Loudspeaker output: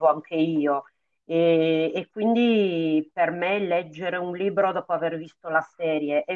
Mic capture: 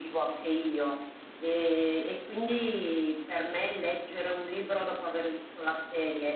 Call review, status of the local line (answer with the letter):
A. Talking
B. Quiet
B